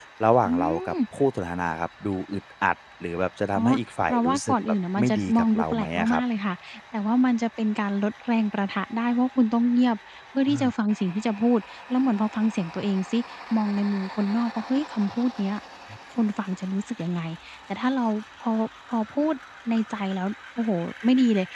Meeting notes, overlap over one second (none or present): present